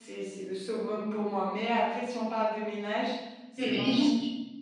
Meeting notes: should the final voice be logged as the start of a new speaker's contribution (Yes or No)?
Yes